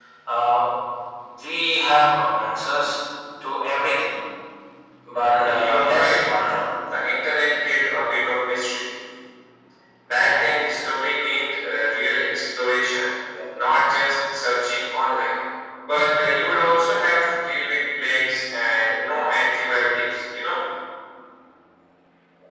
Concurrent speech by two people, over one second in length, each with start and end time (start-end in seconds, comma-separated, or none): 5.1-6.6